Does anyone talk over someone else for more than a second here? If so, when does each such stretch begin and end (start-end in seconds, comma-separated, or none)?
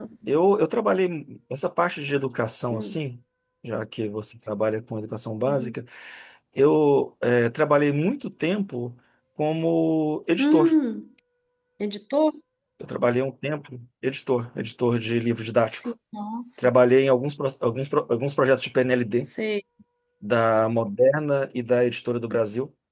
none